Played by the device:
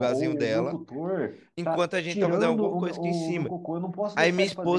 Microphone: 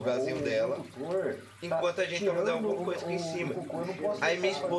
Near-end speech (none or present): present